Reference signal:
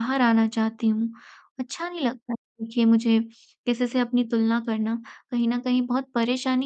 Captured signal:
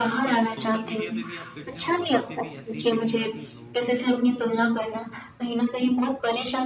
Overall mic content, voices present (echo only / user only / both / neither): both